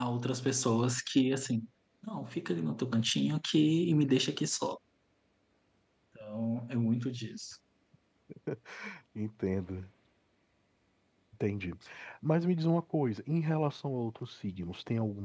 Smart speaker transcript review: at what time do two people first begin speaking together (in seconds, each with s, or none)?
none